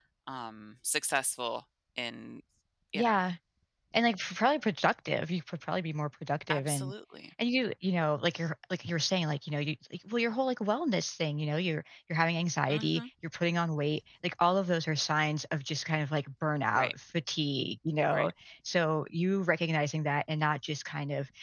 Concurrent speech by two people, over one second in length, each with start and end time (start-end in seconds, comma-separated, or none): none